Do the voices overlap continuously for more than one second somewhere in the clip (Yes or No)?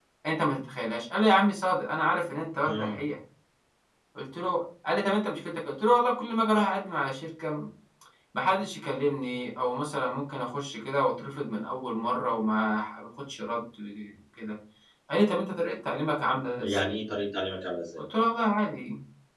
No